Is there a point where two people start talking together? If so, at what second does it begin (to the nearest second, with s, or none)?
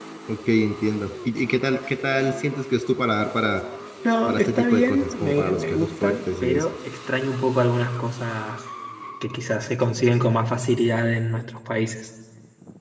4 s